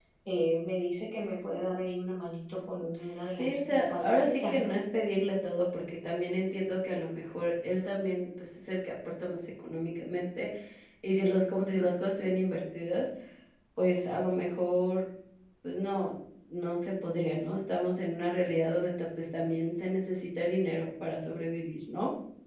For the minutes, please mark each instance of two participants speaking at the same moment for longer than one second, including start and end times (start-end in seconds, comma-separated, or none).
3.3-4.7